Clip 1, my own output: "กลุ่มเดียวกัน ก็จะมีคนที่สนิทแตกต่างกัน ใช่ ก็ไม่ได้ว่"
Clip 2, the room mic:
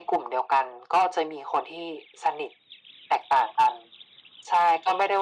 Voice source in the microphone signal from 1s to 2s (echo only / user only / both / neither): echo only